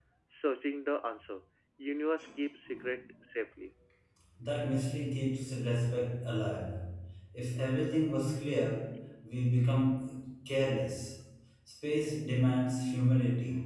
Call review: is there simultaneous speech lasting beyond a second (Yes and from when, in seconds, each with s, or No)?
No